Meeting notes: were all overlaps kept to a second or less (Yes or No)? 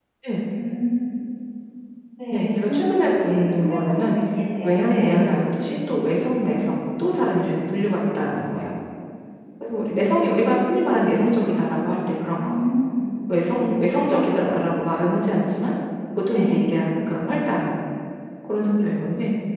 No